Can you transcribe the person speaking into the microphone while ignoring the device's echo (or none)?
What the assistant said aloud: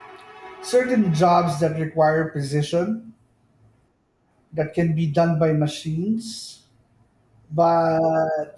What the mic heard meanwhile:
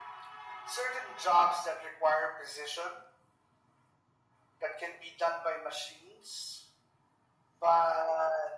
none